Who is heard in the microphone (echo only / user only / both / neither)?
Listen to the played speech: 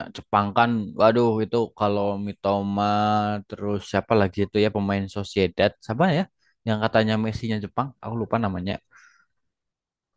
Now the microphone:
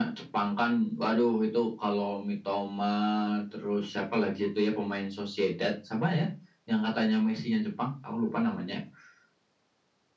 echo only